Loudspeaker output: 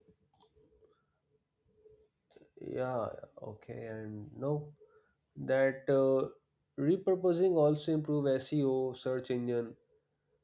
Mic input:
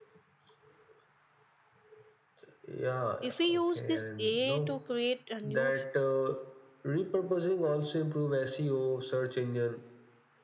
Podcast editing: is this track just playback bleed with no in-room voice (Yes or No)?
No